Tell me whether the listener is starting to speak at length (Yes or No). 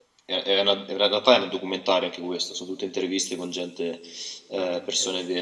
No